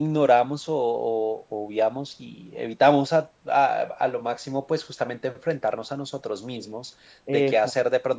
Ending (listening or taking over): listening